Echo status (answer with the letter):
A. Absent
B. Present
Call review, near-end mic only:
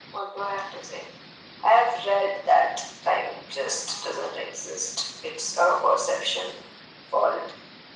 B